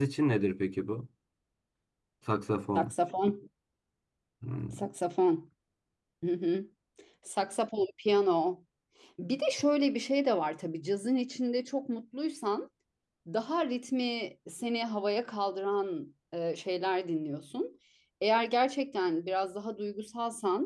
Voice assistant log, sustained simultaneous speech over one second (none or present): none